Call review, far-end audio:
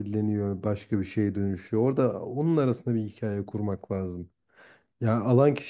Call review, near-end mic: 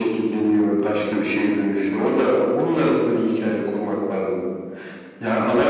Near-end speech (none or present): none